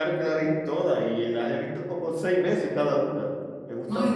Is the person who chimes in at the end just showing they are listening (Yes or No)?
No